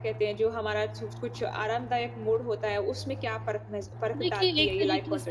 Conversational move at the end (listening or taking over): taking over